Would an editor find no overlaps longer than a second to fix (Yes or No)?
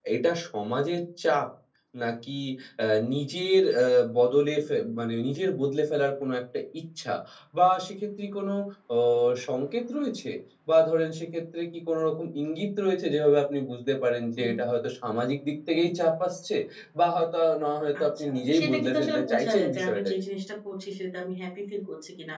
No